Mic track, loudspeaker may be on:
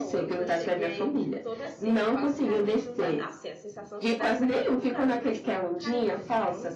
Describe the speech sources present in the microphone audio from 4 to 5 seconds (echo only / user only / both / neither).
both